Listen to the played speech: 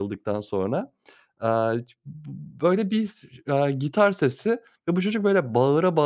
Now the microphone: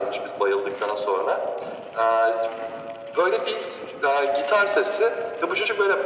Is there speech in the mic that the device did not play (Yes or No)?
No